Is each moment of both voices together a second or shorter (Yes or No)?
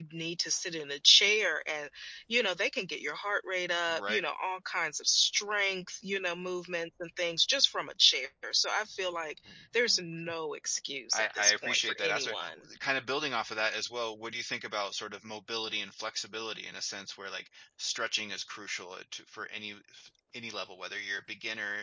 No